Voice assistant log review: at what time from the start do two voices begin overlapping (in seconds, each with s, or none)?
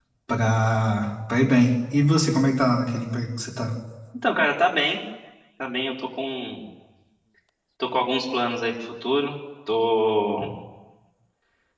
none